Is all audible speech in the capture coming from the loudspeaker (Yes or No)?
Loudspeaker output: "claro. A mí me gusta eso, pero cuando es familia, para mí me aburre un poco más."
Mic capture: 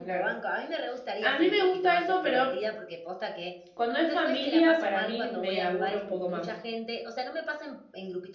No